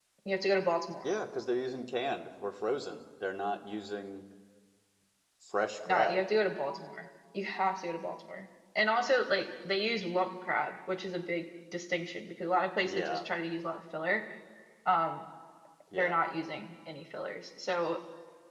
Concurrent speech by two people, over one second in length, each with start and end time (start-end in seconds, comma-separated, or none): none